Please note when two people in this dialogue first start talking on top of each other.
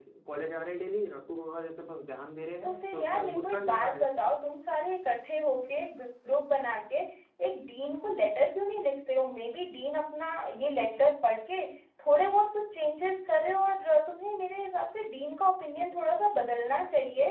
3 s

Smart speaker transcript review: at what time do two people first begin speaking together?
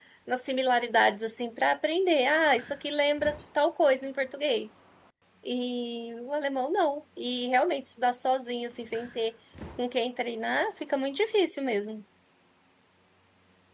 none

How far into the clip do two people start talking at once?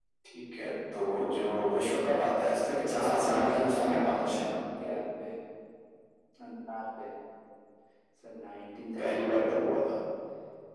3 s

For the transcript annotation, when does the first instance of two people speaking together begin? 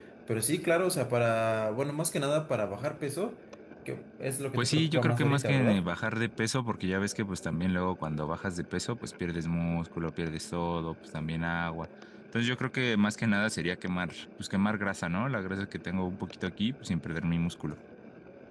5 s

